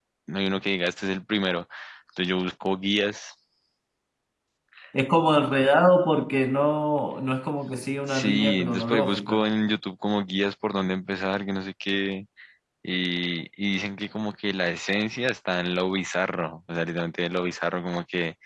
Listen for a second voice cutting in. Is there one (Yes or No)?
Yes